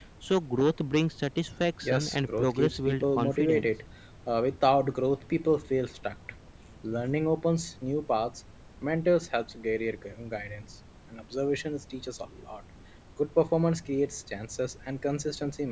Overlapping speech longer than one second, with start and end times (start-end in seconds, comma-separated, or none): 1.8-3.7